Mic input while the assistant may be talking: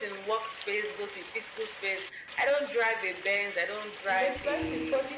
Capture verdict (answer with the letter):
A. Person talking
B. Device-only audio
A